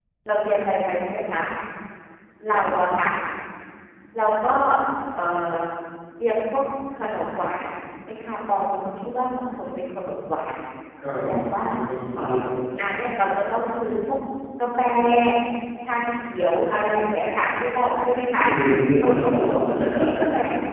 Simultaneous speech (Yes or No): Yes